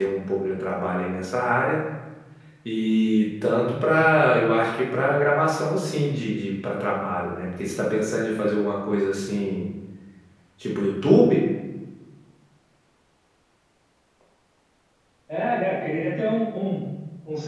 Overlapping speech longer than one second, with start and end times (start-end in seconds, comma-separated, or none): none